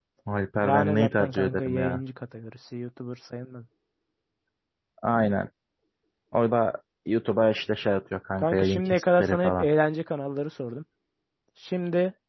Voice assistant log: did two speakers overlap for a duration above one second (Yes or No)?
Yes